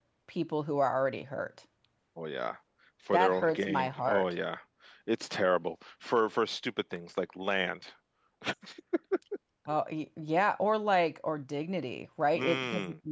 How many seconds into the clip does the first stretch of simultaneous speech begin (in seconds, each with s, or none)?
3.1 s